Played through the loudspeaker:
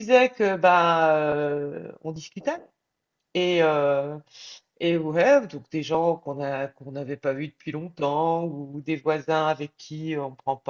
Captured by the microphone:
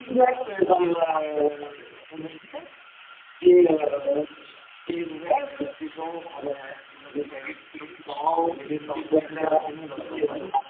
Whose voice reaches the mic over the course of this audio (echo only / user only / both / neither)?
both